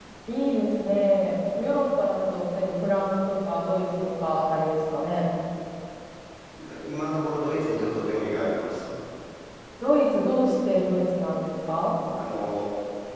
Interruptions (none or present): none